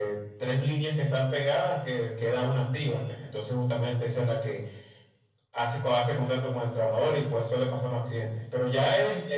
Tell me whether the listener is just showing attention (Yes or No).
Yes